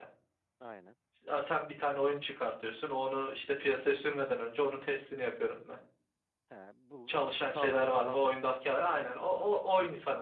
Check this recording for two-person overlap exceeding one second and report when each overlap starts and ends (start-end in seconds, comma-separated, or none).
7.1-9.6